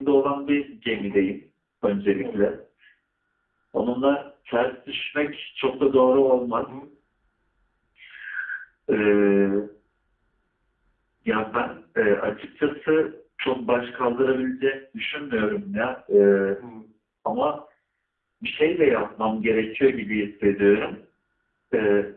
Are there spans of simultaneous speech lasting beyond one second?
No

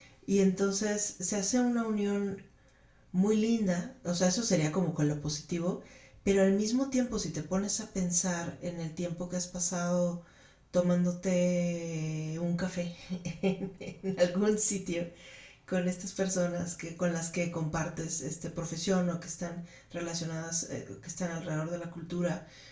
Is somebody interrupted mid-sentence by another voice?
No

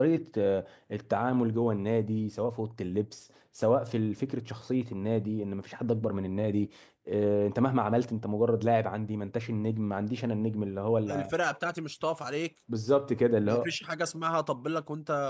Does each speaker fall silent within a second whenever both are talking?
Yes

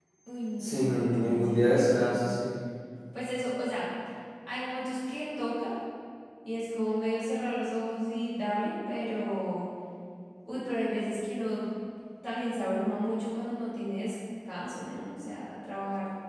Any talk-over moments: Yes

